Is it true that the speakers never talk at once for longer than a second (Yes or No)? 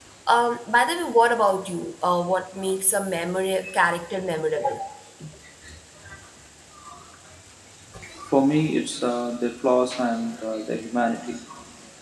Yes